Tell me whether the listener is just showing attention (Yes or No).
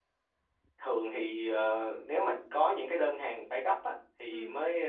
Yes